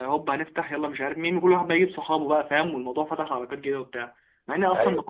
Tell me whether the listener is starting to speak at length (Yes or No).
No